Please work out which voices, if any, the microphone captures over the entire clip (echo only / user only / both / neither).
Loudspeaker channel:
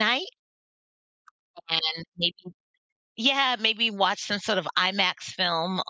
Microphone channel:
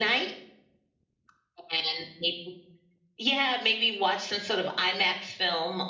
echo only